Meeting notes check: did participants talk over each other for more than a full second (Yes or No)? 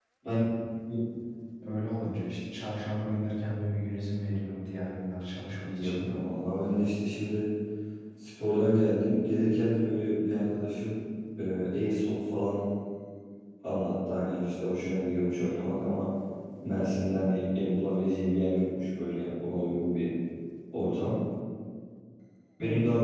No